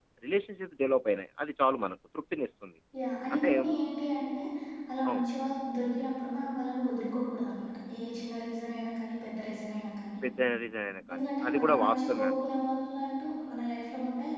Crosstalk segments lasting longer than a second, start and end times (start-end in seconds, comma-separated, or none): 11.1-12.4